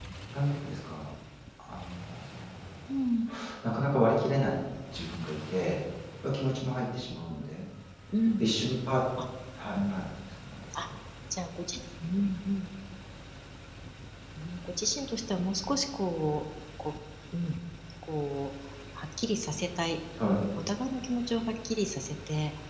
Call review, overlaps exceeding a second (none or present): none